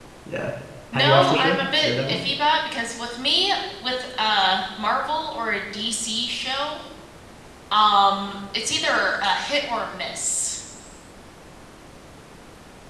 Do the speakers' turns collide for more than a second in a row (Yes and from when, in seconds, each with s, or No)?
Yes, from 0.9 s